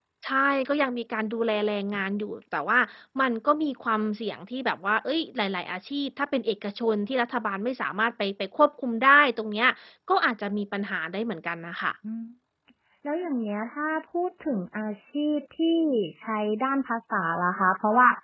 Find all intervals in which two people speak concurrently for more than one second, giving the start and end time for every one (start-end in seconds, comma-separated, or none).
none